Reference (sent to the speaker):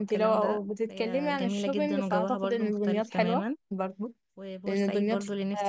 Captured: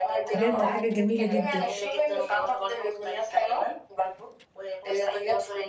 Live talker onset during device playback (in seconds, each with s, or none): 0.3 s